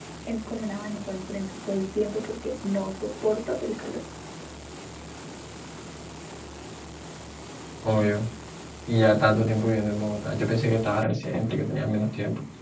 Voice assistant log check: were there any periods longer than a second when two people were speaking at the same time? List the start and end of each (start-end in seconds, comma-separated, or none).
none